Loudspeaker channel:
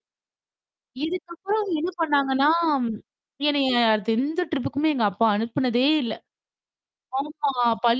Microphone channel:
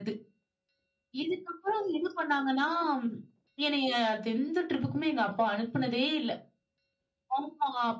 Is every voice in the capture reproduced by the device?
Yes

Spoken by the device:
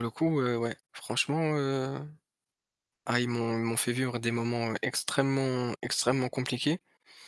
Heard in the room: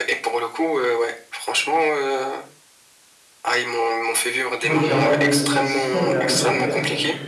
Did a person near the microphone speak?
Yes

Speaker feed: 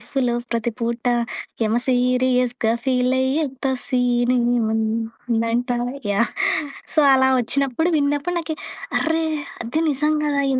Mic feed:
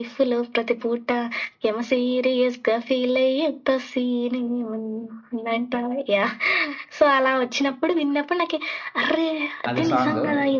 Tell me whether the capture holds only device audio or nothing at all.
No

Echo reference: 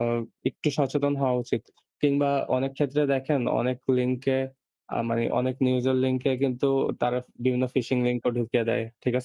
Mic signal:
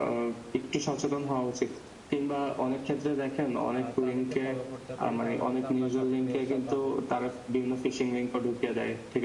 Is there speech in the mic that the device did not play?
Yes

